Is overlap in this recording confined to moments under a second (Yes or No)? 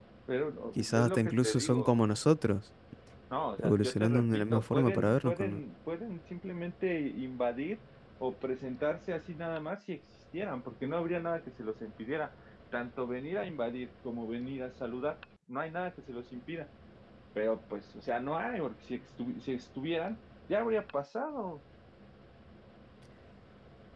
No